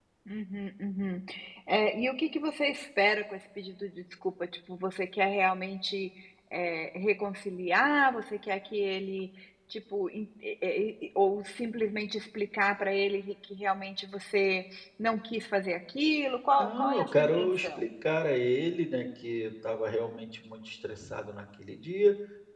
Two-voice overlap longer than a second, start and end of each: 16.5-17.9

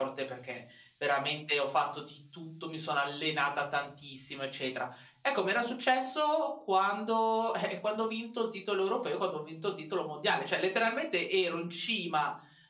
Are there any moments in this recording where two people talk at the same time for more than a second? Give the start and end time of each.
none

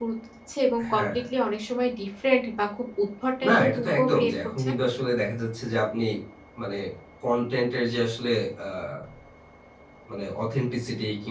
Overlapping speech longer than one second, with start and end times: 3.5-4.7

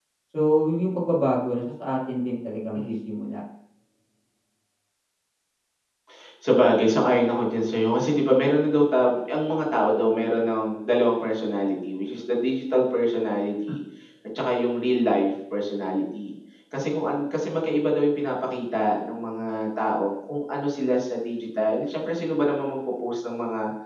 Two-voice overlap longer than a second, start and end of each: none

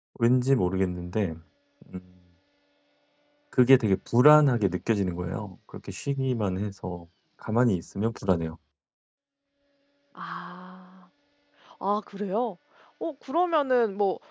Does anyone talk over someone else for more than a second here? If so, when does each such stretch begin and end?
none

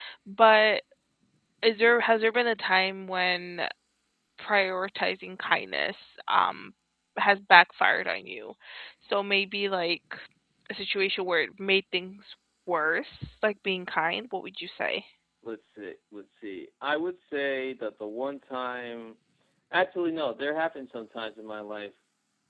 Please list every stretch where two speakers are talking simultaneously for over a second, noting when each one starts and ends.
none

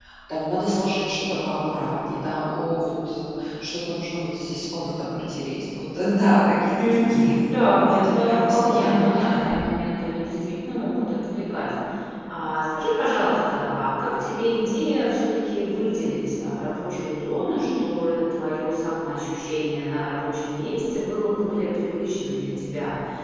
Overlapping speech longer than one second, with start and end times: 6.8-9.5

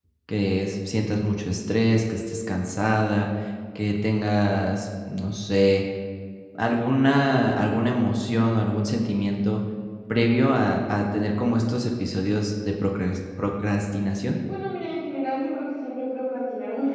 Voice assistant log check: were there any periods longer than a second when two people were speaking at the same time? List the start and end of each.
none

